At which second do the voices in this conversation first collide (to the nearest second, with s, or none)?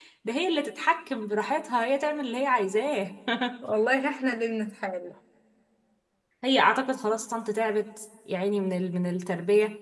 none